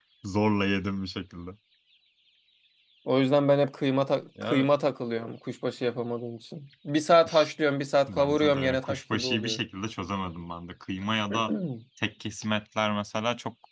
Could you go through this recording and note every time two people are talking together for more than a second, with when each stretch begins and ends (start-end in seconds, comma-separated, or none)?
8.1-9.6